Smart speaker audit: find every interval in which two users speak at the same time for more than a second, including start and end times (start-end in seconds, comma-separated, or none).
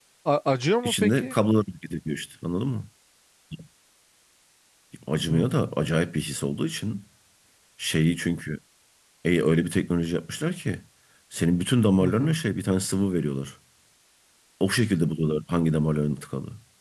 none